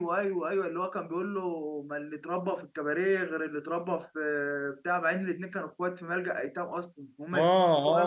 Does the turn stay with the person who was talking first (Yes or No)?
No